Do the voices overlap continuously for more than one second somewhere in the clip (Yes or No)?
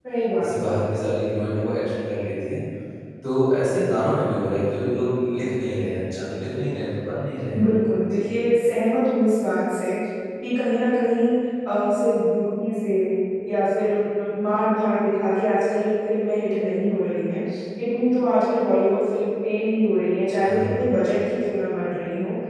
No